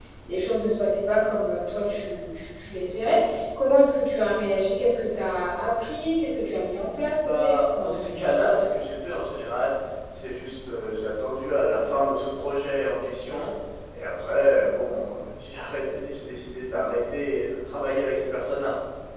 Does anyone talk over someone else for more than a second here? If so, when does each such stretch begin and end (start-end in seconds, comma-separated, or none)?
7.1-8.5